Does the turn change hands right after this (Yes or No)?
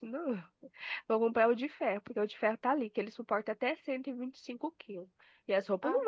No